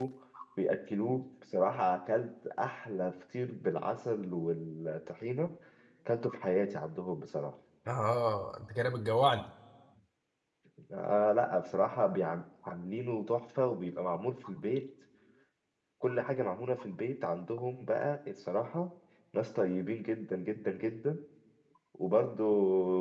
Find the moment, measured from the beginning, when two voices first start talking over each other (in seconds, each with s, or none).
none